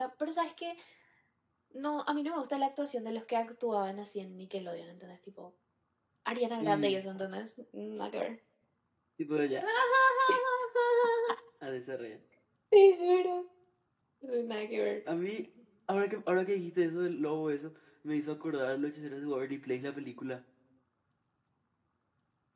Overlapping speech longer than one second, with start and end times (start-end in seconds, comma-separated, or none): none